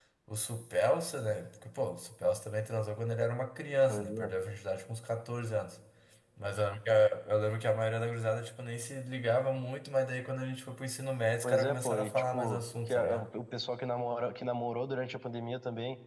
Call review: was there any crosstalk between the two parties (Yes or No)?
Yes